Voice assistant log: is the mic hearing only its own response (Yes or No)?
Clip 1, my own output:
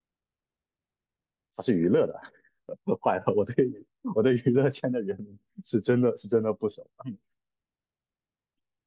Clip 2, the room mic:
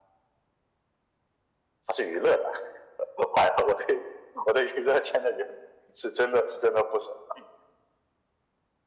Yes